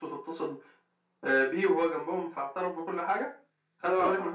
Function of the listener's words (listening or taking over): taking over